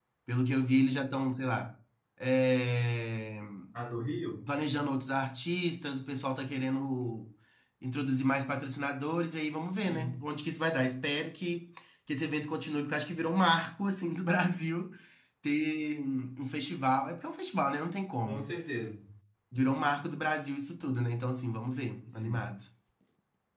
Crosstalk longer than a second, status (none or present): none